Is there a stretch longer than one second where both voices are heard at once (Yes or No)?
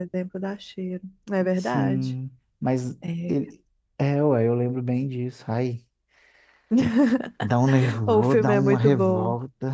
Yes